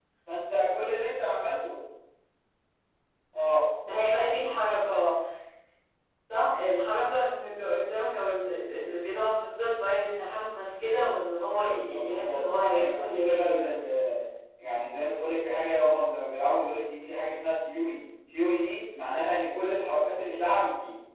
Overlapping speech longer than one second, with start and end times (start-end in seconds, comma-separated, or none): 11.9-13.6